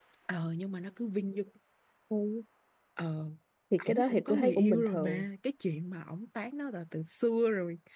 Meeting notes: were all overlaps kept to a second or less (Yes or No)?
No